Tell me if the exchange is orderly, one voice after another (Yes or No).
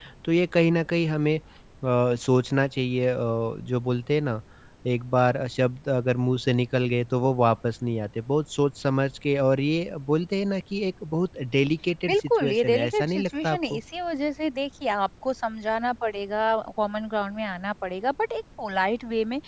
No